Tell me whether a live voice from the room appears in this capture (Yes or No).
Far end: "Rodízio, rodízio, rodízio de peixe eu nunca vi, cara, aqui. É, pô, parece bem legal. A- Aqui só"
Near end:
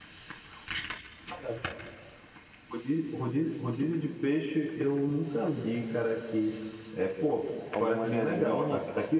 Yes